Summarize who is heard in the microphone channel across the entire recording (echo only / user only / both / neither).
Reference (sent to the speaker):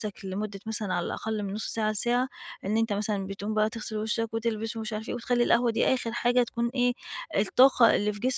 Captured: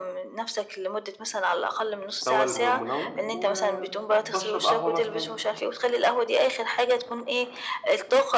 both